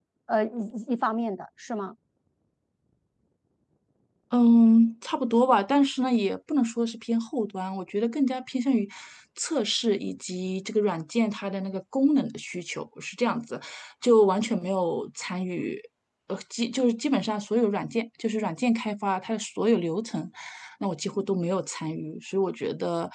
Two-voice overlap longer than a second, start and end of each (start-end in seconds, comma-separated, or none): none